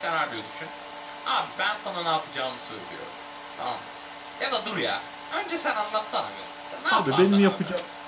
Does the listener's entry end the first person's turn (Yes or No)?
Yes